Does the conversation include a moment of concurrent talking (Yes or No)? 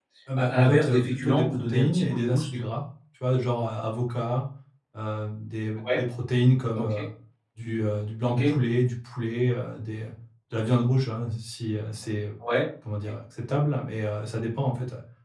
Yes